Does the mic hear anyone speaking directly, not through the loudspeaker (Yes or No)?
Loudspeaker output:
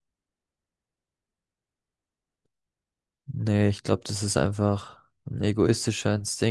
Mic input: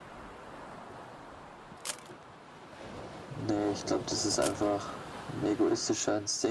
No